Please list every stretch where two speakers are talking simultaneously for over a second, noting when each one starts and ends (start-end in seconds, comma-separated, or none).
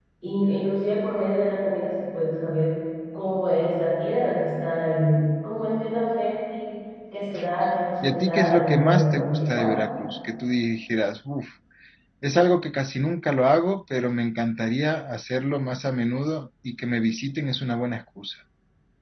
8.0-9.8